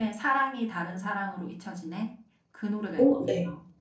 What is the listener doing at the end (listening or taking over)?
taking over